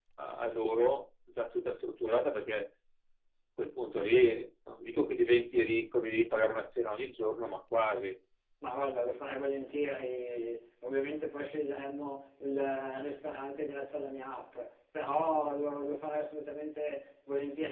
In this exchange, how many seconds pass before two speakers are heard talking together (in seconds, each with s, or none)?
none